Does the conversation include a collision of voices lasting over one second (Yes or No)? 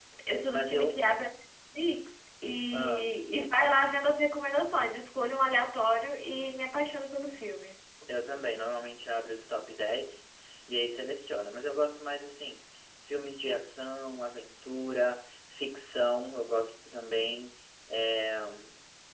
No